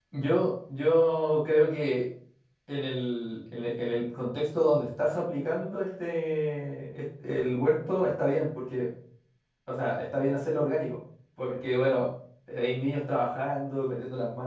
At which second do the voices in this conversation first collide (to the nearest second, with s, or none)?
none